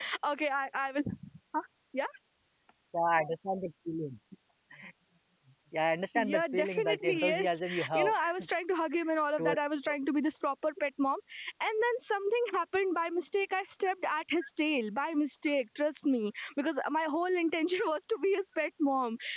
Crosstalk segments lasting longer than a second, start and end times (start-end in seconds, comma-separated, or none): 6.2-8.1